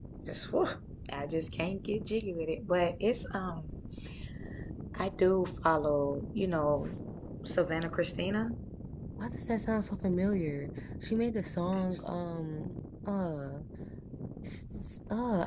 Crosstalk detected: No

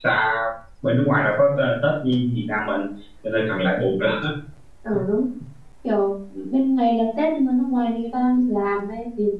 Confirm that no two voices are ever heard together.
Yes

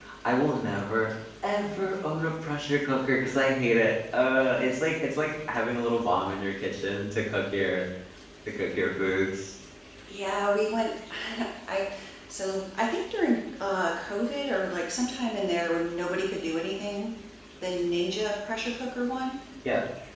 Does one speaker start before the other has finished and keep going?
No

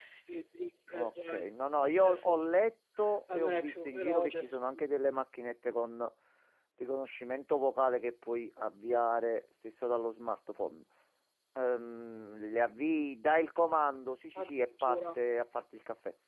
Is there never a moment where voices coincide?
No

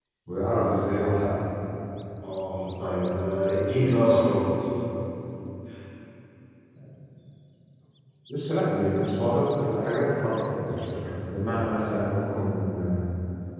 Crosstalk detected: No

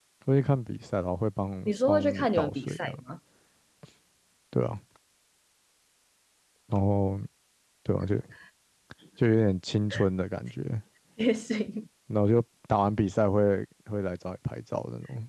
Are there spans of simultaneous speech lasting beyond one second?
Yes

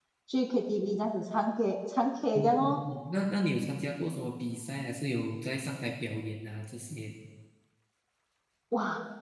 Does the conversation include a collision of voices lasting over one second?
No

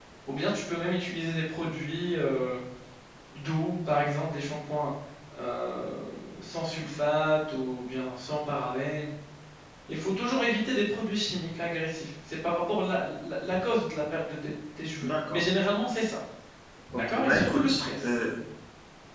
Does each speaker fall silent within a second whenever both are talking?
No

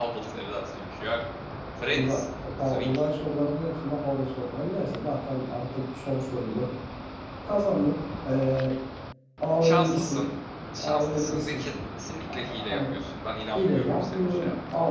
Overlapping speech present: Yes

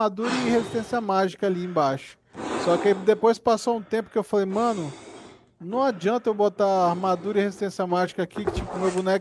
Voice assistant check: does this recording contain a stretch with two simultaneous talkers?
No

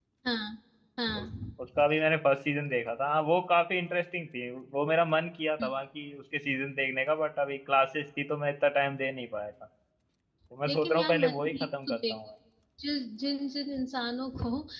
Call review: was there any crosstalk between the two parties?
Yes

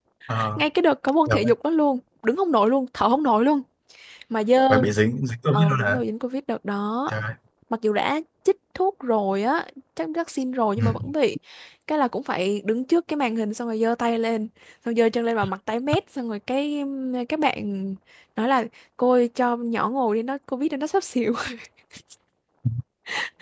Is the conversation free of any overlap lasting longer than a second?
Yes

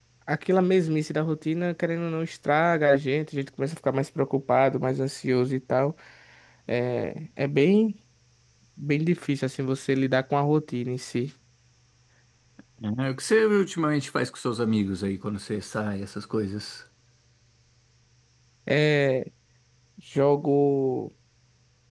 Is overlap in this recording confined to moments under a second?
Yes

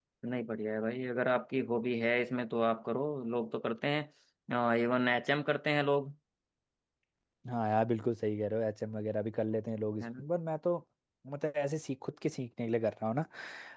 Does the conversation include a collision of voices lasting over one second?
No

